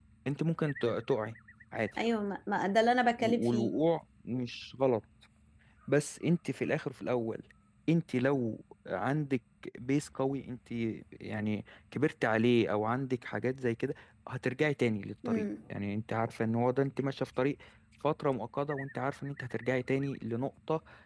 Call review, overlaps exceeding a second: none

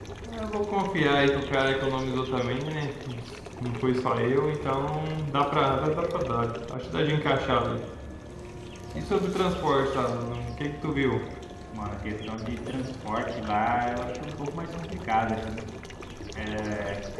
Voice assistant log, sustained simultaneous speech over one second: none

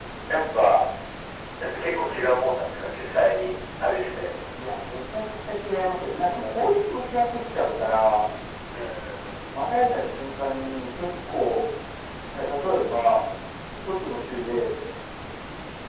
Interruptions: none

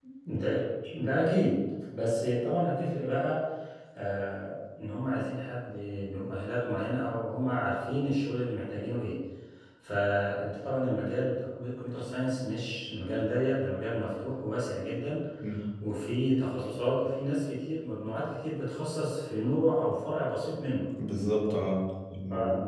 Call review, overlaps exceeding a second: none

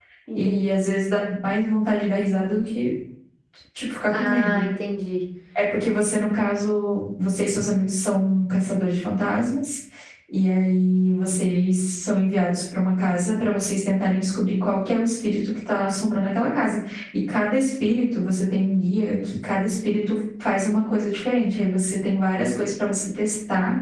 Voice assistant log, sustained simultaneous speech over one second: none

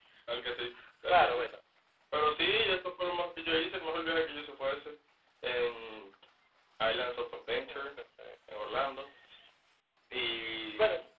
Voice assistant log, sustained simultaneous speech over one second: none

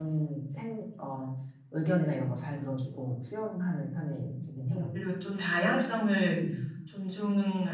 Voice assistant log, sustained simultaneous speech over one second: none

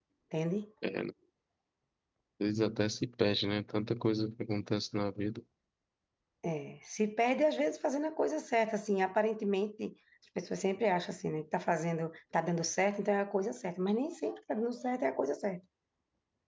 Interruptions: none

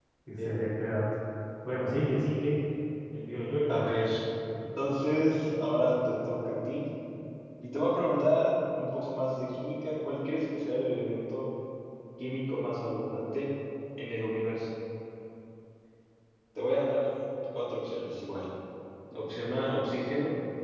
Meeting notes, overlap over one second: none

